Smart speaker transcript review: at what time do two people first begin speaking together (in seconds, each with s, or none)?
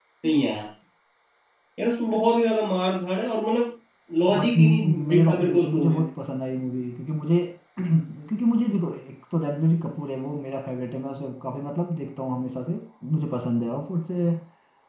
4.4 s